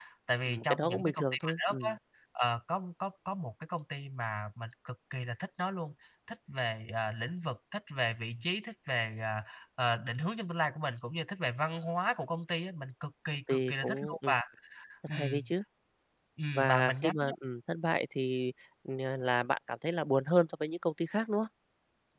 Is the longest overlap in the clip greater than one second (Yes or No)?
Yes